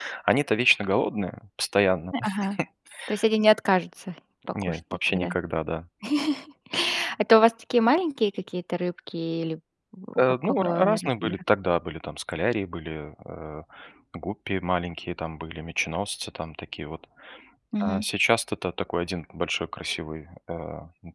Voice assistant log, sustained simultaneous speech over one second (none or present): present